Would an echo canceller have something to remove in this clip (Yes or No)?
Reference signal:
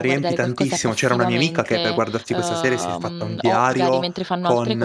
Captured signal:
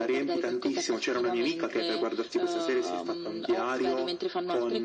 Yes